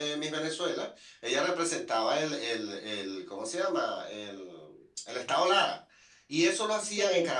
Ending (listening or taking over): listening